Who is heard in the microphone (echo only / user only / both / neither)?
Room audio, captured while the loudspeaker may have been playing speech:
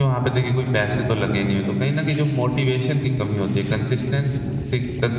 user only